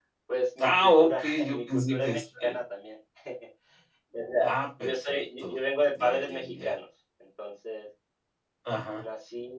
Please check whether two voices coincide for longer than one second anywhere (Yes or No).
Yes